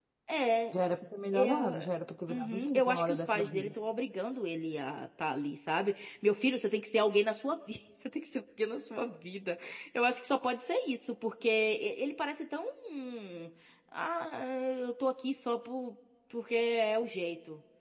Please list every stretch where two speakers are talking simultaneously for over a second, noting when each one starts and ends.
2.3-3.7

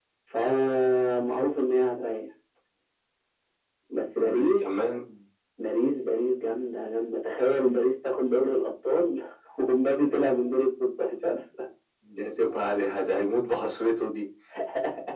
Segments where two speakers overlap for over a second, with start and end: none

